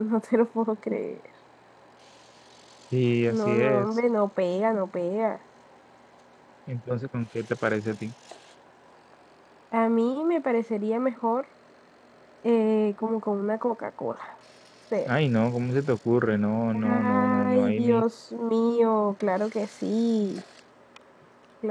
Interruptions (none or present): present